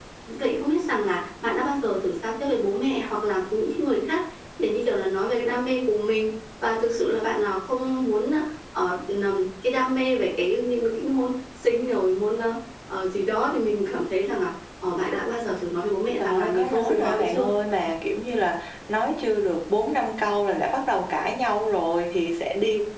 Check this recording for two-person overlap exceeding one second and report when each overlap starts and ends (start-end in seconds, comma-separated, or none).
16.2-17.5